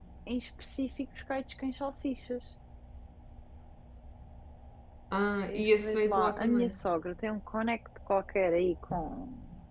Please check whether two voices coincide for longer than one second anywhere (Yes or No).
Yes